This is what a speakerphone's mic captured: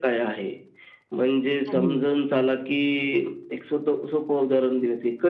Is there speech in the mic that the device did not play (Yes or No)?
Yes